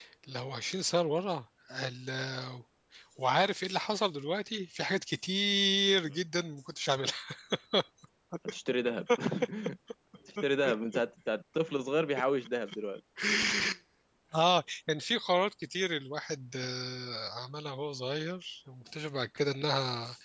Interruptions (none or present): none